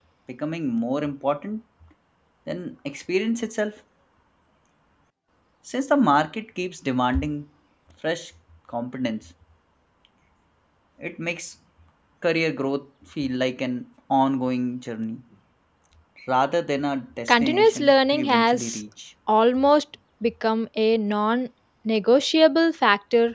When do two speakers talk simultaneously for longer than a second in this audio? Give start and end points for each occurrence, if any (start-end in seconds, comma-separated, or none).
17.3-18.8